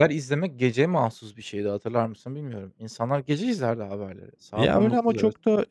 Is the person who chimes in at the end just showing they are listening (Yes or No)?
No